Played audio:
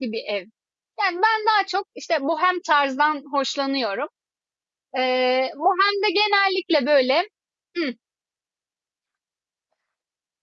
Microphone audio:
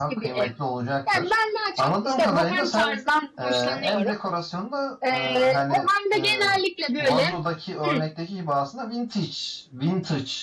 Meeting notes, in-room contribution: present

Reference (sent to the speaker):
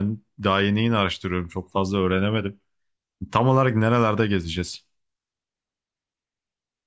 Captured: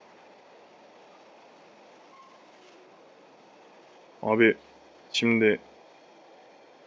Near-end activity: present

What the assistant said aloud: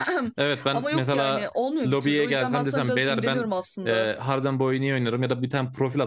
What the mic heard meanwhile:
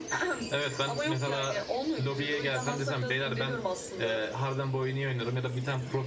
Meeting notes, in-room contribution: none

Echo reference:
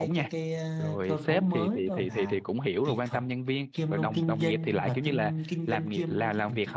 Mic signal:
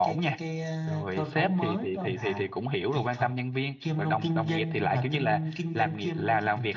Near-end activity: none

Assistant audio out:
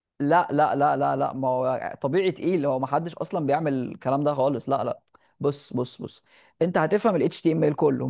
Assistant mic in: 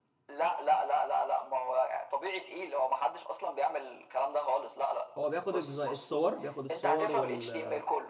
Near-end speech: present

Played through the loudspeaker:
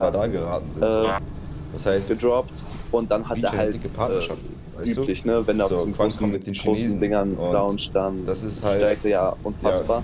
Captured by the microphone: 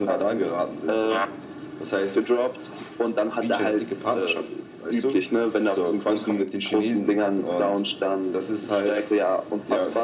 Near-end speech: none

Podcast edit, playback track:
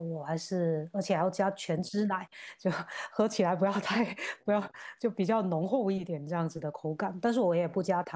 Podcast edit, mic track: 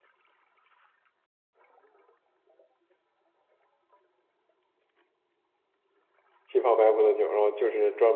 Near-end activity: present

